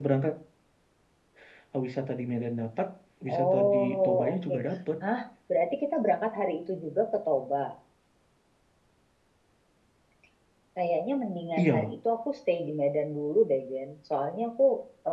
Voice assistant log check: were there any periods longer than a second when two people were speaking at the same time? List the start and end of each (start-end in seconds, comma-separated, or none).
3.3-4.5